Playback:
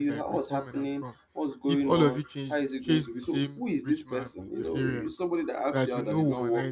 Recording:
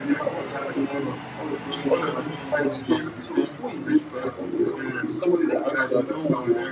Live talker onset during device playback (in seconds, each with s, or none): none